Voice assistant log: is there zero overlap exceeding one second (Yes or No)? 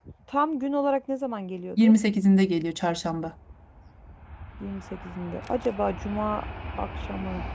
Yes